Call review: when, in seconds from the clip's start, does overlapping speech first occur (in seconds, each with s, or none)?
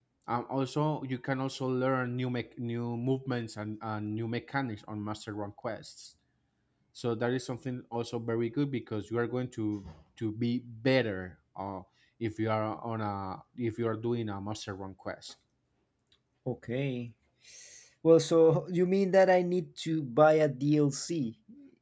none